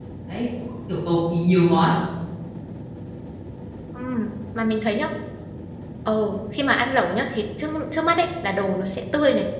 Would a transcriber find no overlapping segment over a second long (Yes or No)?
Yes